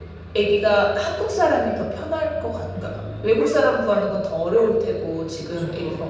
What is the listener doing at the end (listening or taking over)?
listening